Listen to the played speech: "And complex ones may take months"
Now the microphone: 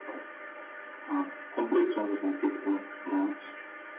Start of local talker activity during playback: none

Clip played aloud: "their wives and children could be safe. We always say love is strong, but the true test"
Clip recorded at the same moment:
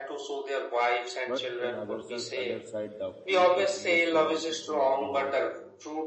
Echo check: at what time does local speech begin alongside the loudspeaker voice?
1.3 s

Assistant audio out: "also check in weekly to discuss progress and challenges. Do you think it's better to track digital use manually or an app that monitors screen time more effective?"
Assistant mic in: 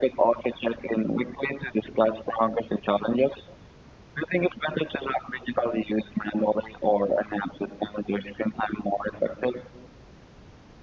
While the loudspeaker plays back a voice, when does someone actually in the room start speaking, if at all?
none

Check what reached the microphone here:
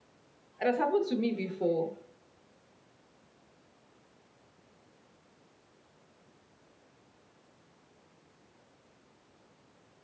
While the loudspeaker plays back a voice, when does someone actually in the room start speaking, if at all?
0.6 s

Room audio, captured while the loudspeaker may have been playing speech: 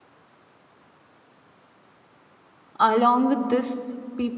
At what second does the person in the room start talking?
2.8 s

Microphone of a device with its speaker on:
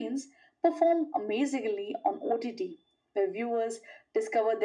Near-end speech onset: none

